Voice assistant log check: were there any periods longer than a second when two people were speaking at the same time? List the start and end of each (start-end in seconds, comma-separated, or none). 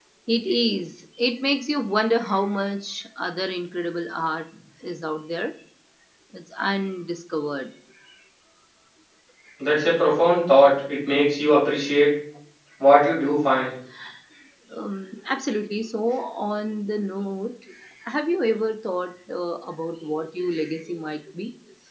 none